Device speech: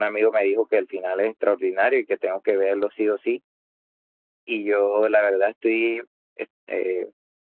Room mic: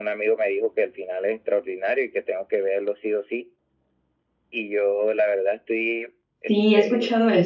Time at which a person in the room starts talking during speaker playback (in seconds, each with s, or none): 6.5 s